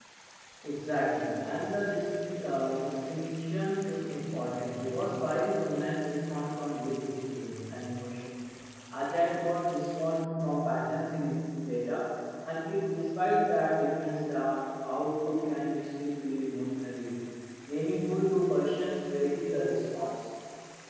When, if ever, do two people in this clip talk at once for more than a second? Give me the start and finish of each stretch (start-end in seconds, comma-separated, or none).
none